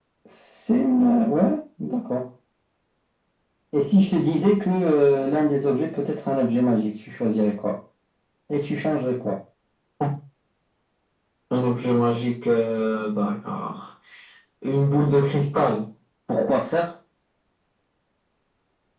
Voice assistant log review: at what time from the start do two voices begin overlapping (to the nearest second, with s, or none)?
none